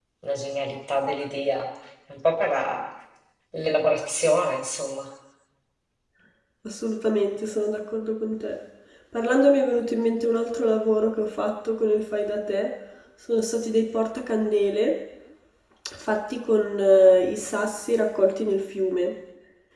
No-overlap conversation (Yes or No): Yes